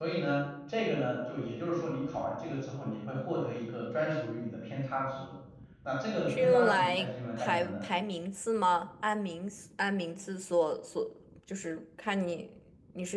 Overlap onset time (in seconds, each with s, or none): 6.3 s